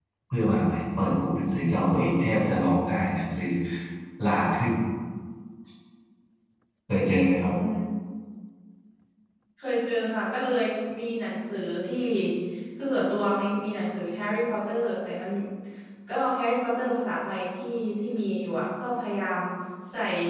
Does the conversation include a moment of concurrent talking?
No

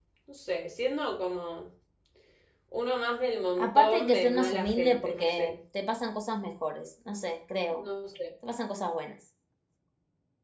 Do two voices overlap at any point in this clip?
Yes, from 3.6 s

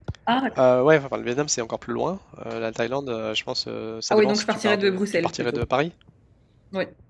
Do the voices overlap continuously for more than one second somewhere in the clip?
Yes, from 4.1 s

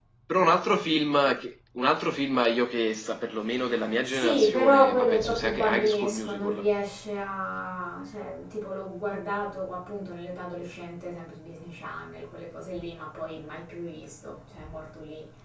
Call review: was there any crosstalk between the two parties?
Yes, from 4.1 s

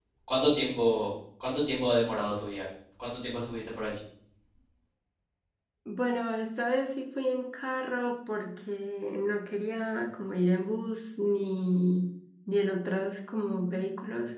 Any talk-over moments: No

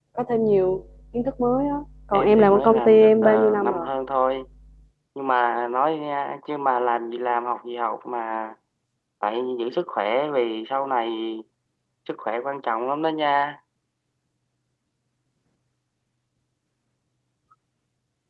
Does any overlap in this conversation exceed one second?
Yes, from 2.1 s

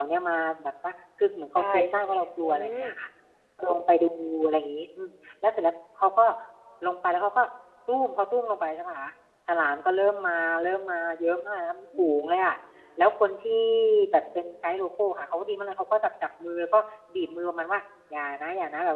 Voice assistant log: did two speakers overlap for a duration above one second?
Yes, from 1.6 s

